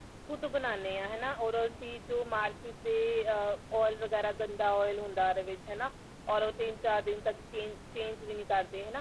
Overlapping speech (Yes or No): No